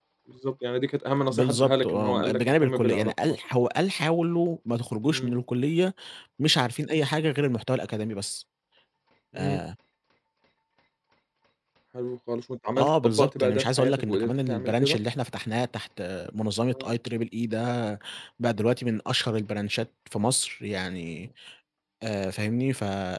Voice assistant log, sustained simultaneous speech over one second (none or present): present